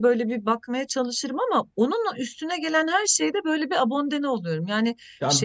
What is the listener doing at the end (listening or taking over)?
taking over